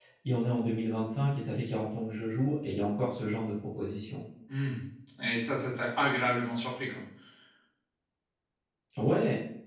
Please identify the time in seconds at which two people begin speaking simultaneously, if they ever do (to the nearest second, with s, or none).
none